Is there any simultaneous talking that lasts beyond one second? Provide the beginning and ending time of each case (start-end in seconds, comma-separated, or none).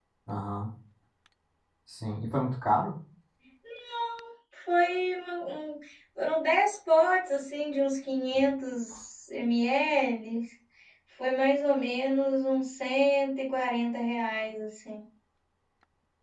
none